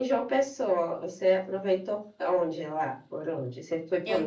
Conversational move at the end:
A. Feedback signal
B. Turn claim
B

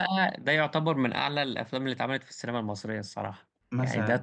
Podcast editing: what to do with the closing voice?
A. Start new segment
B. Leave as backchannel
A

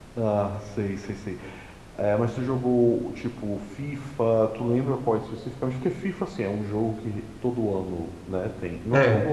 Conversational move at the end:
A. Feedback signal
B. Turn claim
A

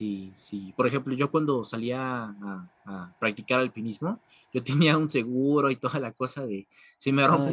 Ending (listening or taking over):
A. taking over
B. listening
B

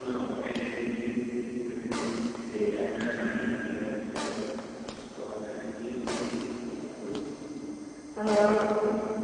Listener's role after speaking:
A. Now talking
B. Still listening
B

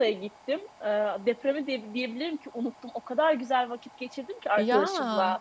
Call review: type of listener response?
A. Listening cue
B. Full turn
A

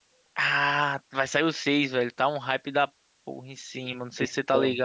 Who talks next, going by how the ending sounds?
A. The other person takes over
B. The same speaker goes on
A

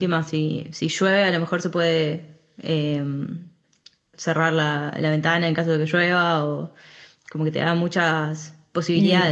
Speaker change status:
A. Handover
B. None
A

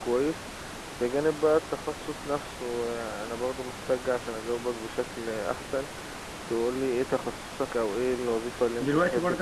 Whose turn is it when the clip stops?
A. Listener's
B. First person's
A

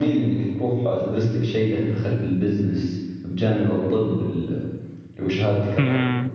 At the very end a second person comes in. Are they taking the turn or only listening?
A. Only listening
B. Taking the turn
B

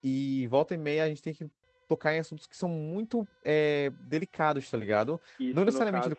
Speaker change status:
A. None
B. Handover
B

